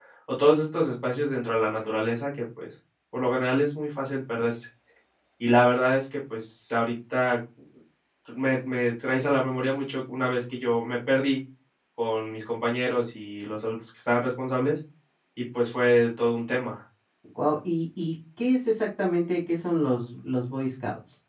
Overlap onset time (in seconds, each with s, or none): none